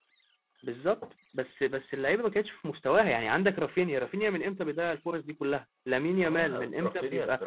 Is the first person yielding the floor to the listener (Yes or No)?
Yes